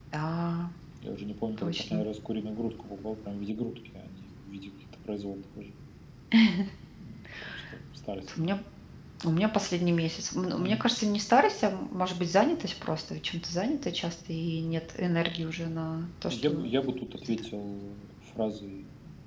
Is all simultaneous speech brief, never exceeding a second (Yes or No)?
Yes